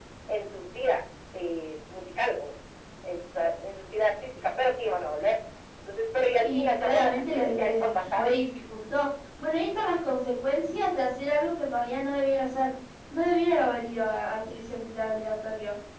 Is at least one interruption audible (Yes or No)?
Yes